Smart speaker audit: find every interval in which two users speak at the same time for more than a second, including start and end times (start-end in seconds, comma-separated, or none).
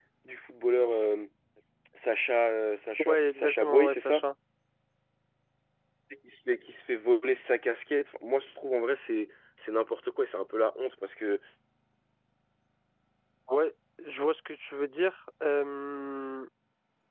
3.0-4.2